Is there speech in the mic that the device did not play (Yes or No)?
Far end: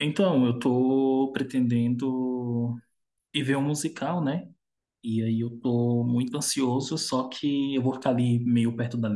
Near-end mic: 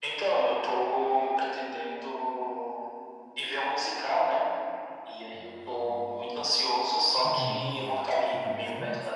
Yes